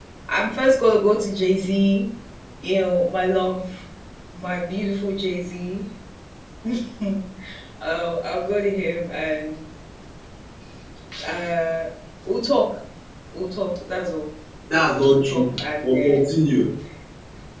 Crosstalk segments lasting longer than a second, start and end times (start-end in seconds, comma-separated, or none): 15.1-16.4